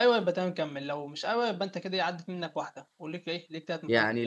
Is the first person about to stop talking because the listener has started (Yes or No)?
Yes